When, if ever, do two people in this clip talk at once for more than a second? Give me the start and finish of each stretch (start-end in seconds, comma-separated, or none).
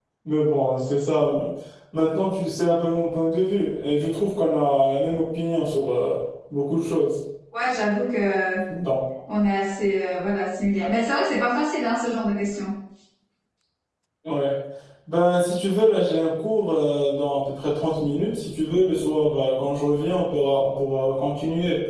none